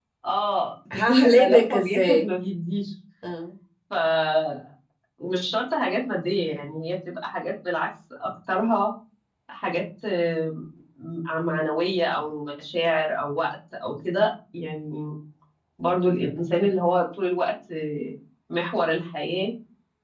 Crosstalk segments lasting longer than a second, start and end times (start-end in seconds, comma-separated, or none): 1.0-2.3